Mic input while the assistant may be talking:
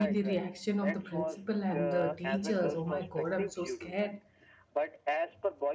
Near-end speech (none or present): present